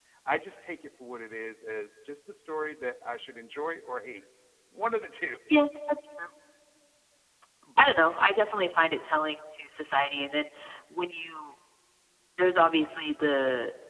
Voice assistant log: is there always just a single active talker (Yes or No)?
Yes